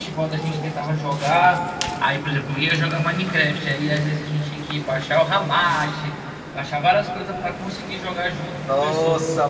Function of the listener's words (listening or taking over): taking over